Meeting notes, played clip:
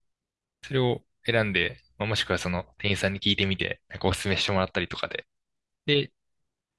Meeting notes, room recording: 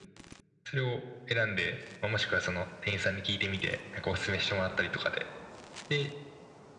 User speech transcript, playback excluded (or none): none